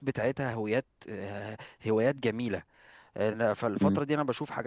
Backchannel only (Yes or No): Yes